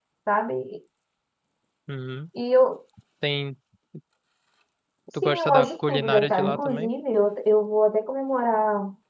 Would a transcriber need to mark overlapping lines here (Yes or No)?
Yes